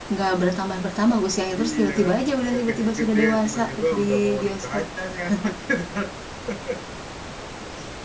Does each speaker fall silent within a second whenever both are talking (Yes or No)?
No